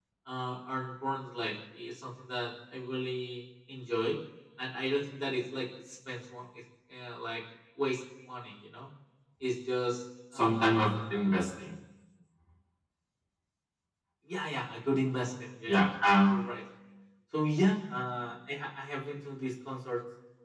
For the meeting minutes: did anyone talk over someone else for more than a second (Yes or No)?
Yes